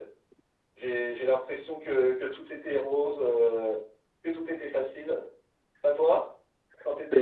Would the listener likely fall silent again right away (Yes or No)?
No